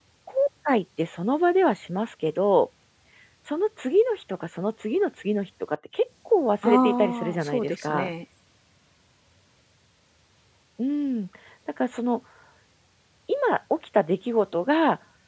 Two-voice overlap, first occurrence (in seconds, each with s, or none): 6.6 s